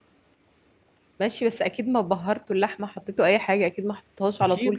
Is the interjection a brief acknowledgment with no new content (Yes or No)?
No